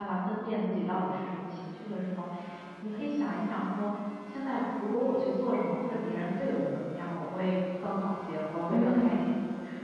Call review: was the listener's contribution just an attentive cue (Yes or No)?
Yes